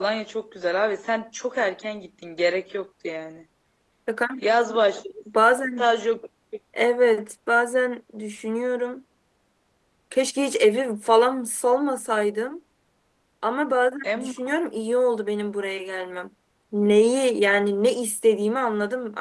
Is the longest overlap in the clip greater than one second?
No

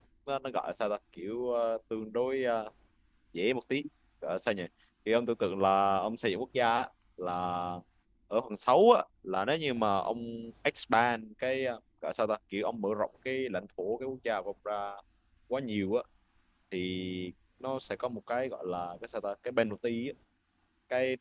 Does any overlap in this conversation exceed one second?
No

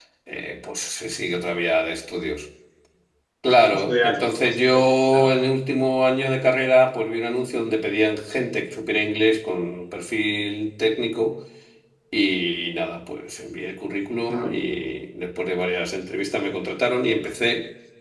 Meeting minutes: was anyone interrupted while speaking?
Yes, from 3.7 s

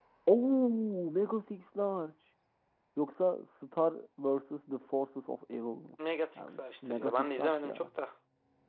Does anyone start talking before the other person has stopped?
Yes, from 6.4 s

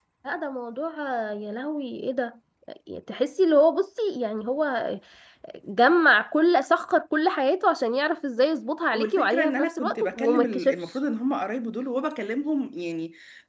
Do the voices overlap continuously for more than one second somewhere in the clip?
Yes, from 8.9 s

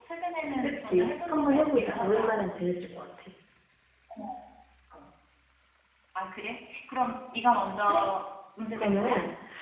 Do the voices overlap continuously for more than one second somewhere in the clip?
Yes, from 0.6 s

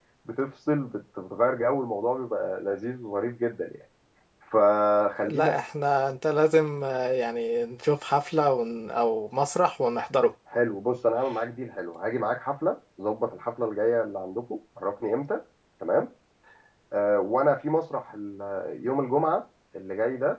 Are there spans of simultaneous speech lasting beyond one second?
No

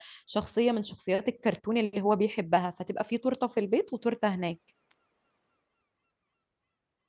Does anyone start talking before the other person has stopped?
No

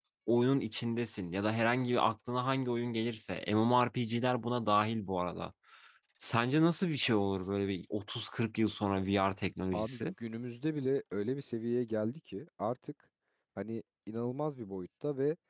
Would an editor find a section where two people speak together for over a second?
No

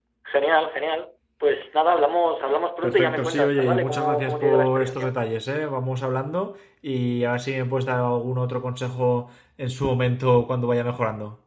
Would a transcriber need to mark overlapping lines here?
Yes, from 2.8 s

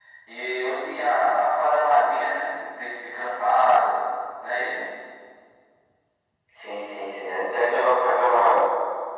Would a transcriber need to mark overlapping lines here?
No

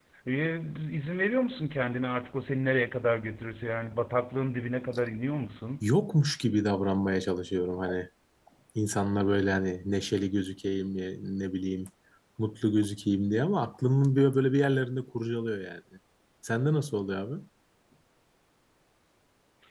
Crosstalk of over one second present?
No

